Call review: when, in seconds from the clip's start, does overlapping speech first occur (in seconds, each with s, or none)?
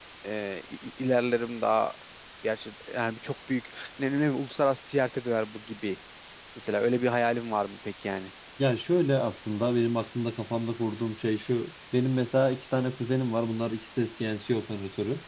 none